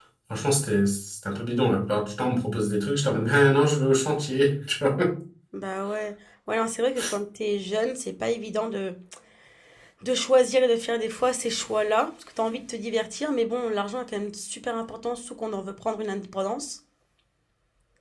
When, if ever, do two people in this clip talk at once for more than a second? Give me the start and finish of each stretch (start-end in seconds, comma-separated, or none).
none